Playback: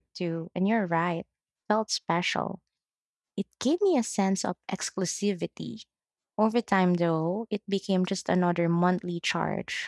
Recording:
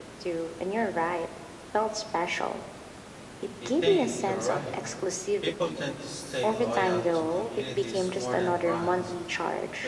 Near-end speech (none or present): present